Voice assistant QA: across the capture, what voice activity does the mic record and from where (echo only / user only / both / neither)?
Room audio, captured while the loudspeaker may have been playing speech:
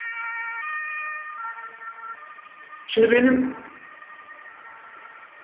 user only